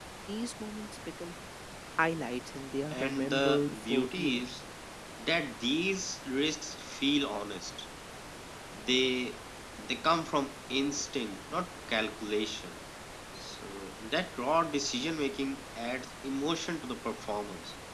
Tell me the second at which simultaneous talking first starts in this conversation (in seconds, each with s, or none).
2.9 s